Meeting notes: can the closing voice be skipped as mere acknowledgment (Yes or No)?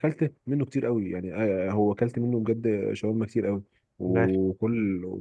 Yes